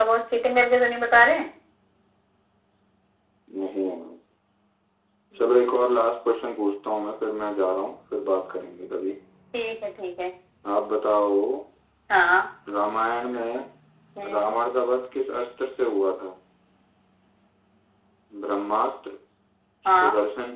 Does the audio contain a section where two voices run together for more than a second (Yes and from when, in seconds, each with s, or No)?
No